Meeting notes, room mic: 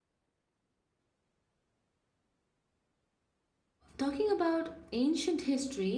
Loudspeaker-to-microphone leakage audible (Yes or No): No